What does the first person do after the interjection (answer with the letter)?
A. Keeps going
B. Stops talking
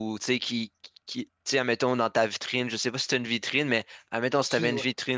A